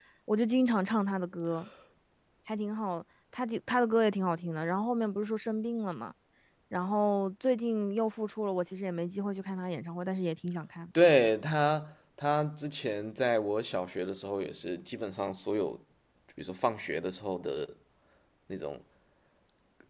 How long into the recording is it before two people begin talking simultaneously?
none

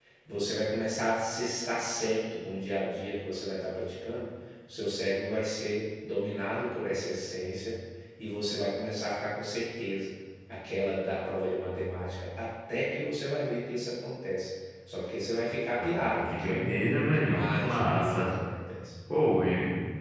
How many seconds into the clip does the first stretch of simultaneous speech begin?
16 s

